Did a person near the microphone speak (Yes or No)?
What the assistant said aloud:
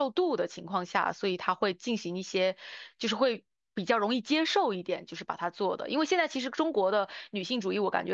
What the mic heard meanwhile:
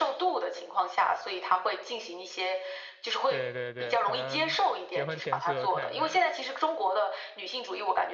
Yes